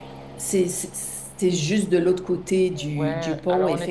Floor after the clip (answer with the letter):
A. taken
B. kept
A